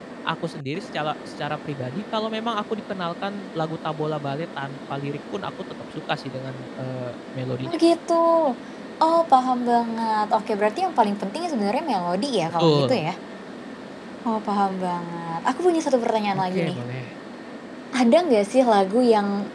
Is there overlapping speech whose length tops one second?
No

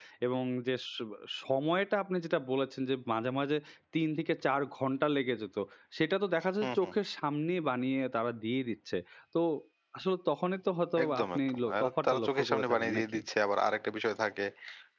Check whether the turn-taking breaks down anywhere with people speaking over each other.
Yes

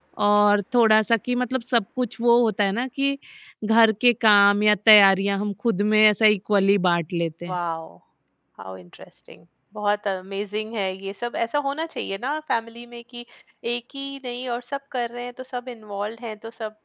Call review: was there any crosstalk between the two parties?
No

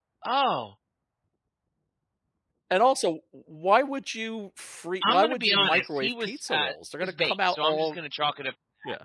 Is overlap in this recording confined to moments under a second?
No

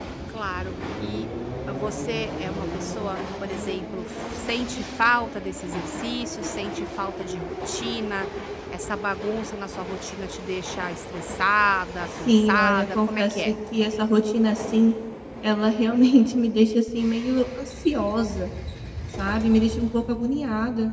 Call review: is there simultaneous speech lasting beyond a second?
Yes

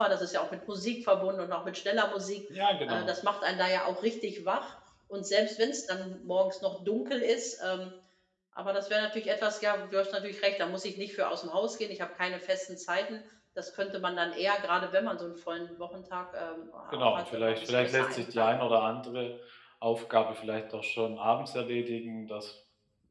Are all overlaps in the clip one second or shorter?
No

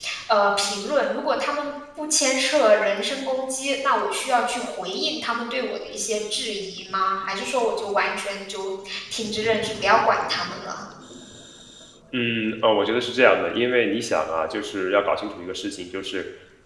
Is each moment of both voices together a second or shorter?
Yes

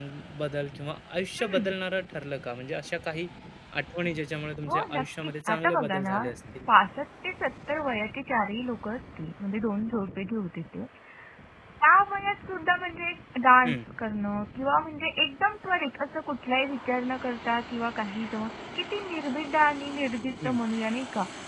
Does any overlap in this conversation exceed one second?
Yes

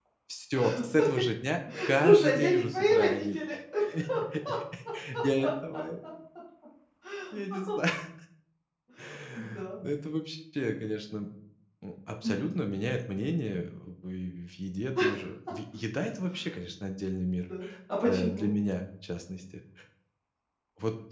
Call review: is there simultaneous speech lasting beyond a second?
Yes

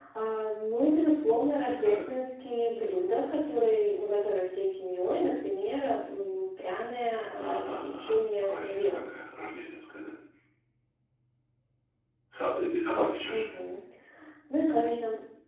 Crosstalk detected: Yes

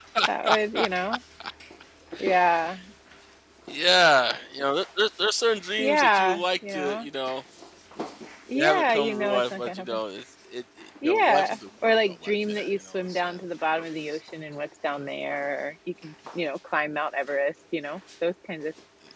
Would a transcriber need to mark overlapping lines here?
Yes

